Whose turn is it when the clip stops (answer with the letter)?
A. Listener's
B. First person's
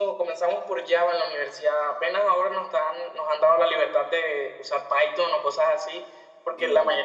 B